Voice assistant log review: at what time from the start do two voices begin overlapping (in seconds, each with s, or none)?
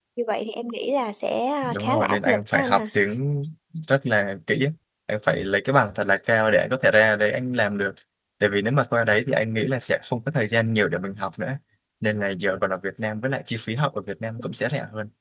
1.6 s